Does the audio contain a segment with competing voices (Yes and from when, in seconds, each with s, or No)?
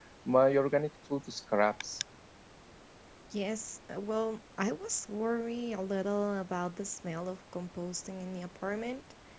No